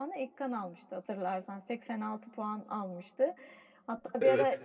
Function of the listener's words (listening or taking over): listening